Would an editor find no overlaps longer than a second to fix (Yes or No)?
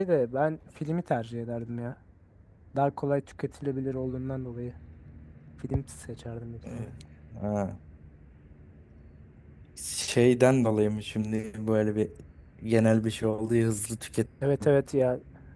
Yes